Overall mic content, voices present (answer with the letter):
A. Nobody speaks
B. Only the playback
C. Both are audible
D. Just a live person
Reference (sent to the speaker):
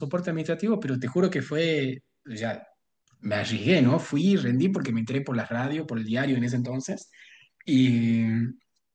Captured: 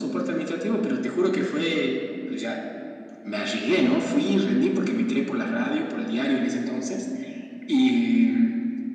B